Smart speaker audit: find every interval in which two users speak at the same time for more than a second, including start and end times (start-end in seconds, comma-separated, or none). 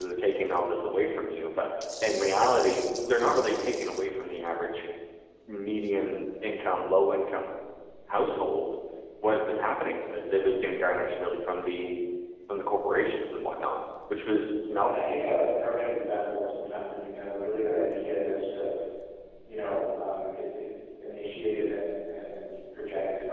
none